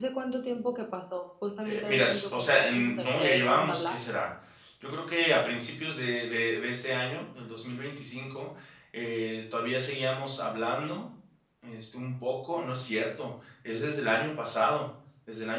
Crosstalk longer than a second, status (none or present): present